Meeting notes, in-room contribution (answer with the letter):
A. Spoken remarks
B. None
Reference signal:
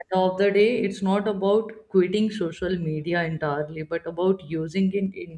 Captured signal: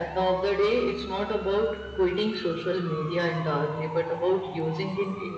B